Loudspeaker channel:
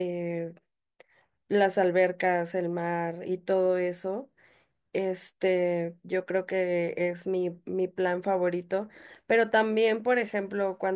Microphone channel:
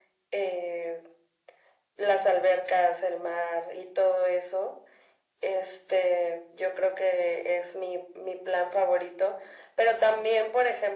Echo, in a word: present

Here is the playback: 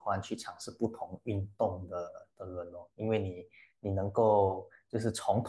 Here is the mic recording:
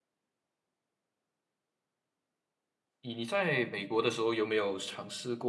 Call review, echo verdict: none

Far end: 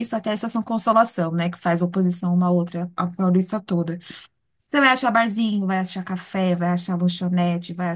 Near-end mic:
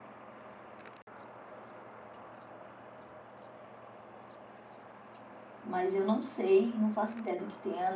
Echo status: none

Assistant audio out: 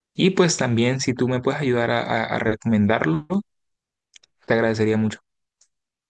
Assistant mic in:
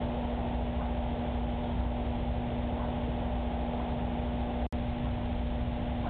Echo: none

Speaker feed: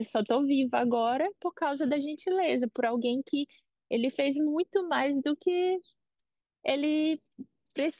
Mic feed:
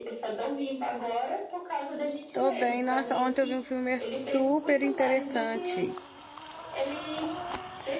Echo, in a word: present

